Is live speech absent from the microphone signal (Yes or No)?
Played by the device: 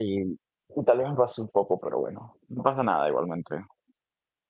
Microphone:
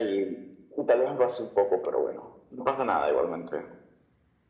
Yes